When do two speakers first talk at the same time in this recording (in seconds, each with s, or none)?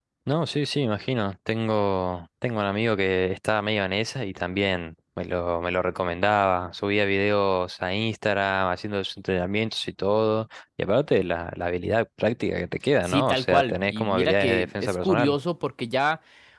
13.0 s